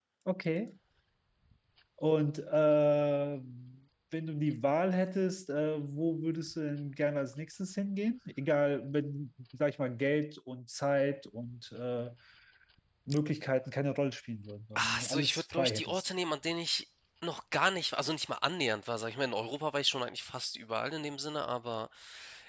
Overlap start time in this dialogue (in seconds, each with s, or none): 14.8 s